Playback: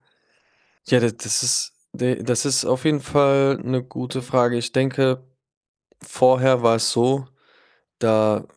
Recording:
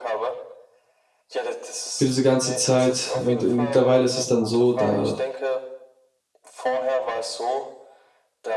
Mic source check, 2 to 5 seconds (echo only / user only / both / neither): both